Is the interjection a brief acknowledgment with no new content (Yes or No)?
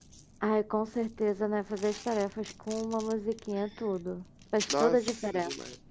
No